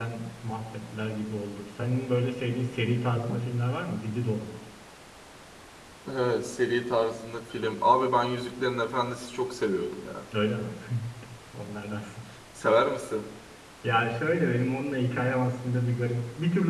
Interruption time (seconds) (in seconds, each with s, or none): none